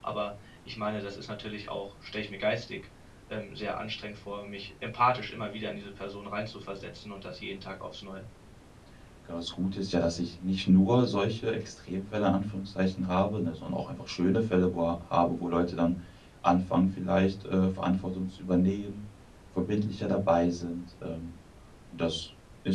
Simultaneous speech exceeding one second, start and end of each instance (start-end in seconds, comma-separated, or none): none